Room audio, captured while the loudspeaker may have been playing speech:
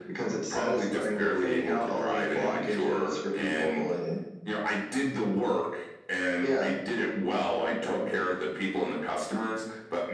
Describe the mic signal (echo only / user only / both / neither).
echo only